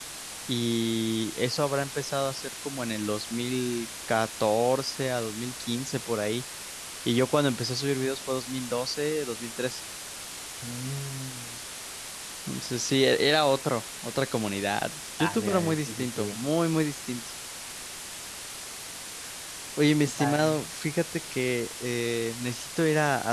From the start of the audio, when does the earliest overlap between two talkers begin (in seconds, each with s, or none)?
15.2 s